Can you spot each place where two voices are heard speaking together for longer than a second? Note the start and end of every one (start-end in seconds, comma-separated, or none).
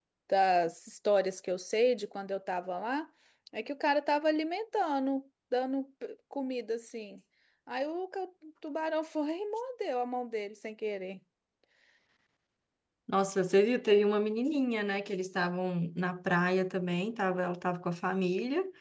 none